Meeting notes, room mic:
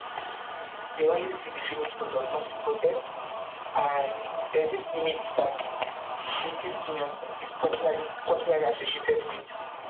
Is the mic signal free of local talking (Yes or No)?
Yes